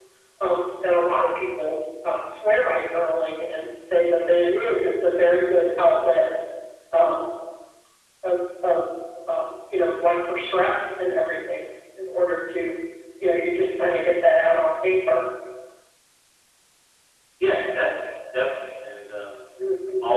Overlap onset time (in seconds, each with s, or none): none